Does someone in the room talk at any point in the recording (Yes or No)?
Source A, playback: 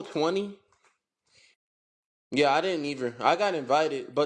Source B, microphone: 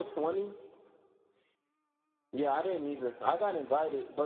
No